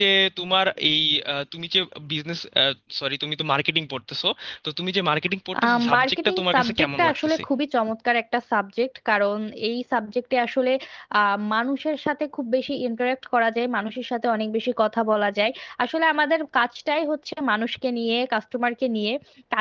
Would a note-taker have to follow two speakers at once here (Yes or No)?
Yes